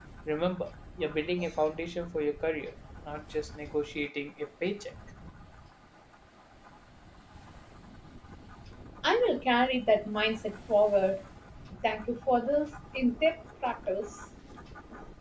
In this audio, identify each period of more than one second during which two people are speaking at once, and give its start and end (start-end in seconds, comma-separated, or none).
none